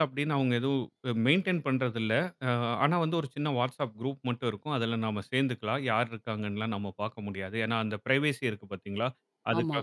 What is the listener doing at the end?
listening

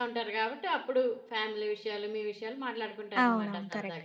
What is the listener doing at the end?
taking over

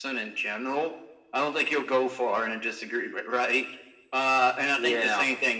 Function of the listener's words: listening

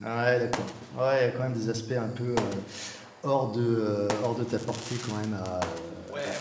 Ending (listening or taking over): taking over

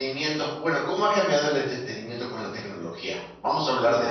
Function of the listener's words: taking over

